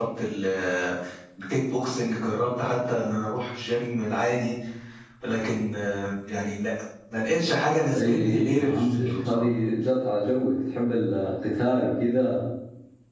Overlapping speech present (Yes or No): Yes